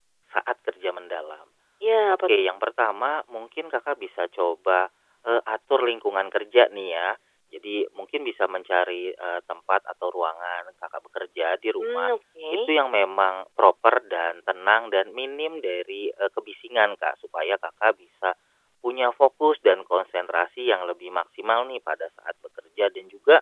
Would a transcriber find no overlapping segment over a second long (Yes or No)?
Yes